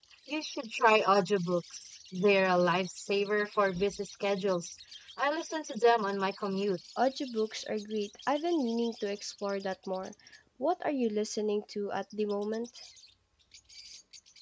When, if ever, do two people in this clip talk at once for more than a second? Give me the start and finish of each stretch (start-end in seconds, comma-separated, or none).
none